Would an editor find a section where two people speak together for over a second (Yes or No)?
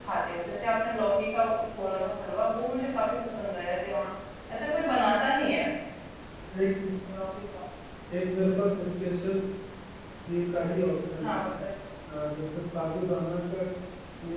No